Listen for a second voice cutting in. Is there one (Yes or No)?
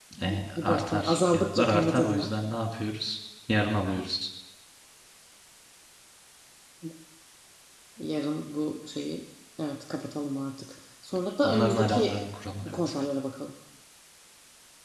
Yes